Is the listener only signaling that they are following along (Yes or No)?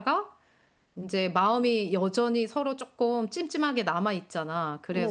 Yes